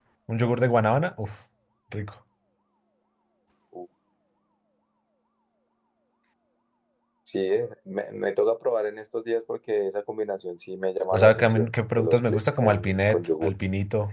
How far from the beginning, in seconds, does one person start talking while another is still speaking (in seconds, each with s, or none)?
11.1 s